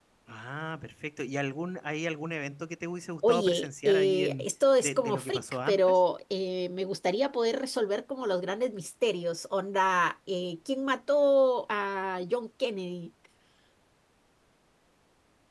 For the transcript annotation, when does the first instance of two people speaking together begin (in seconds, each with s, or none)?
3.2 s